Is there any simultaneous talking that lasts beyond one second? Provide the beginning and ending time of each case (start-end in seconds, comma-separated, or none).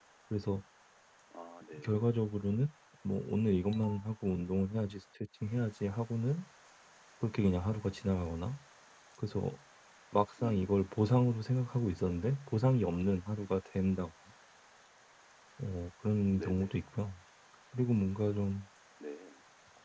none